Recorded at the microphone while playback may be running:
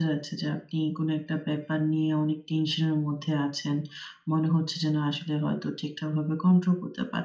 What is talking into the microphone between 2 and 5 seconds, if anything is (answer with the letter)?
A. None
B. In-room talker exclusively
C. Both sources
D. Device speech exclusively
D